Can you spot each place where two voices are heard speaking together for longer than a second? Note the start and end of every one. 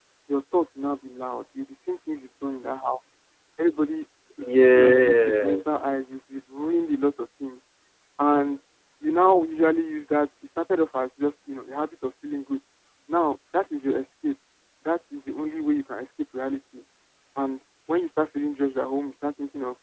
4.5-5.9

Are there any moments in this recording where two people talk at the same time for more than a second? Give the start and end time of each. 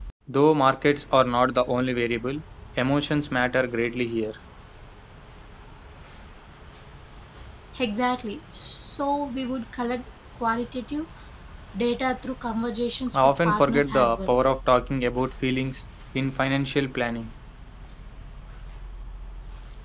13.1-14.4

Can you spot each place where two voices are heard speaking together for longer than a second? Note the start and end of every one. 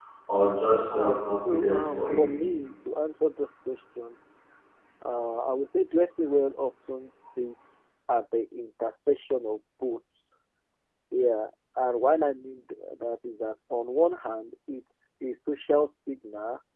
0.9-2.3

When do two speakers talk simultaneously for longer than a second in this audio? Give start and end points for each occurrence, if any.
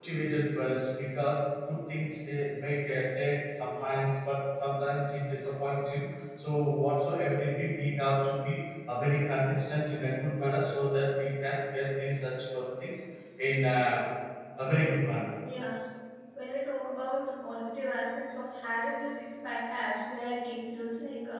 none

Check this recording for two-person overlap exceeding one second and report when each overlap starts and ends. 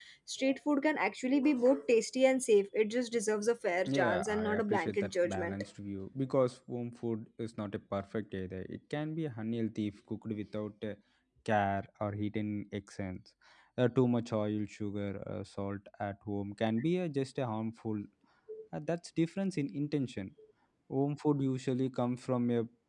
3.9-5.5

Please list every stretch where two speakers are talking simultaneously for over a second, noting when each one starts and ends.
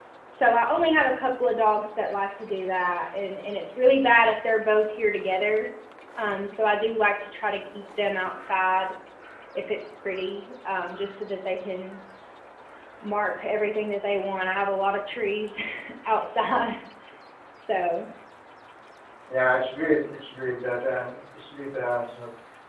none

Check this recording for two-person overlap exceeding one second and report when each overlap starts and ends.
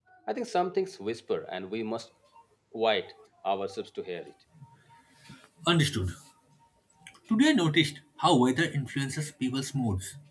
none

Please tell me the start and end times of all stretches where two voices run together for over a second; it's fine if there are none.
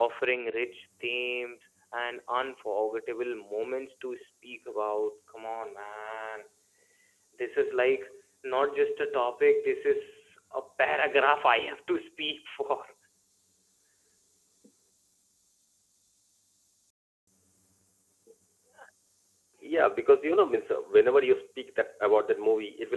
none

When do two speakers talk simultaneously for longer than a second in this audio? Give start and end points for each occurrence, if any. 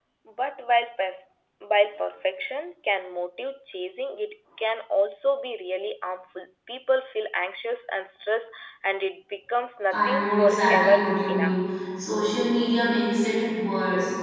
9.9-11.6

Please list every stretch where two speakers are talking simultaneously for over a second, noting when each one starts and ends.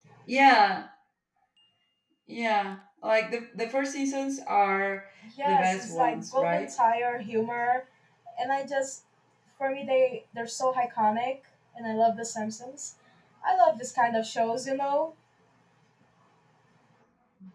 5.4-6.7

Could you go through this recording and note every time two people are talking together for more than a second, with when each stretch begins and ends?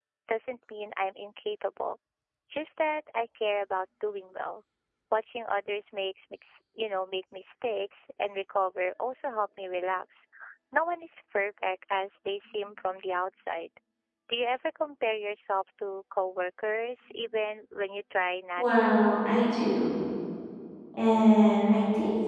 none

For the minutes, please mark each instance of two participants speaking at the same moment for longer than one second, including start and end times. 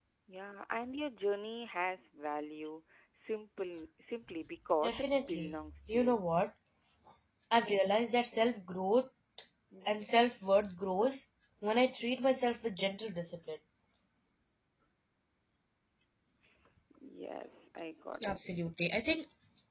4.8-6.2

